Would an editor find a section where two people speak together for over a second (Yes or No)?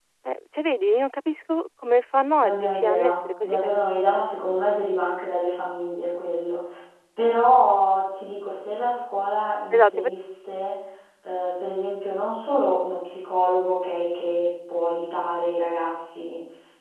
Yes